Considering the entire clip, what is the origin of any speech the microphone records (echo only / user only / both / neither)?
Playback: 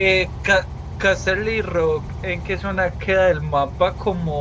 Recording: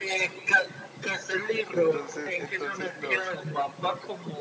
both